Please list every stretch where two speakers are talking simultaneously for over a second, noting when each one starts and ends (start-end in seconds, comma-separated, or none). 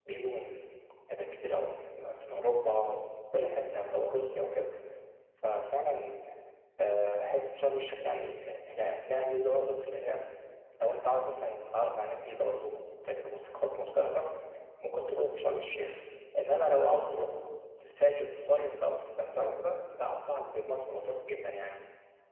none